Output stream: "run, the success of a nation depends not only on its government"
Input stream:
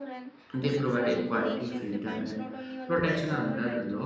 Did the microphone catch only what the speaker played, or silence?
No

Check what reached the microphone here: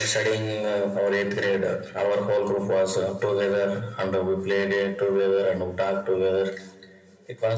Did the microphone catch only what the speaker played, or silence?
Yes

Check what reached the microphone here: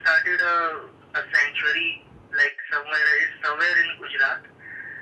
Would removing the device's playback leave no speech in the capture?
Yes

